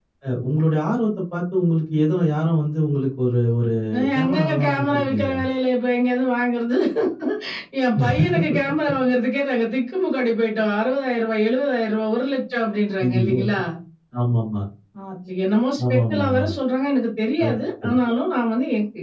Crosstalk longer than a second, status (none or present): present